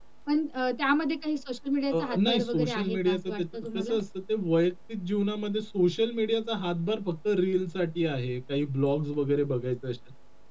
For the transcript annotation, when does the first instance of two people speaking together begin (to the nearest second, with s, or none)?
2 s